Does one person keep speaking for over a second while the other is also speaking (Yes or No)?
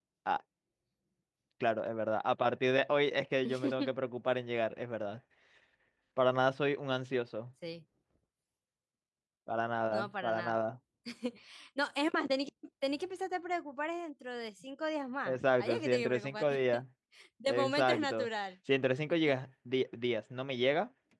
Yes